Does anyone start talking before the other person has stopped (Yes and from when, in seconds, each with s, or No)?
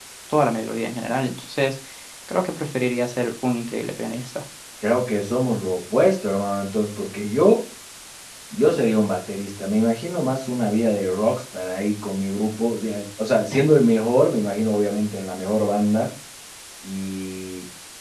No